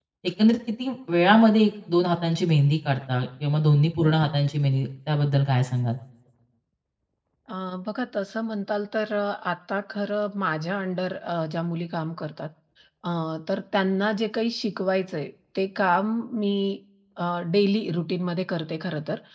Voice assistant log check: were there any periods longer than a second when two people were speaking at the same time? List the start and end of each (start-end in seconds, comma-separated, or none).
none